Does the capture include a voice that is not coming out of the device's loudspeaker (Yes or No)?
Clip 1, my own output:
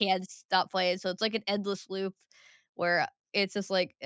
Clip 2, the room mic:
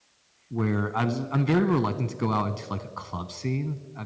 Yes